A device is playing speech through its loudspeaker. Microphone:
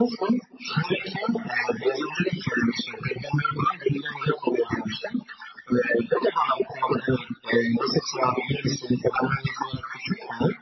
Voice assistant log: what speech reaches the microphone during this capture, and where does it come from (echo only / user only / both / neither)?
echo only